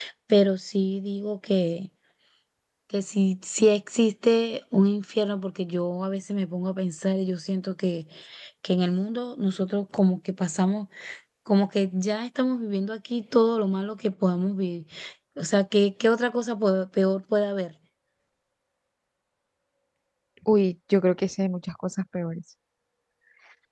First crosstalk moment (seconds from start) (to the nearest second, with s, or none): none